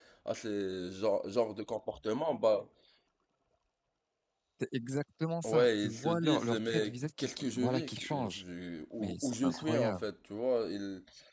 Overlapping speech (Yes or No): Yes